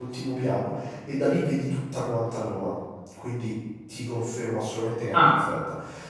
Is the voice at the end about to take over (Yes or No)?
No